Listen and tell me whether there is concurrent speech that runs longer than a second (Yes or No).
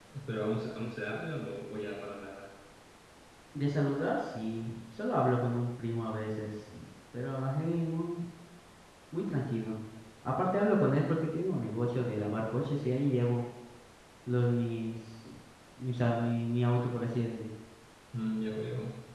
No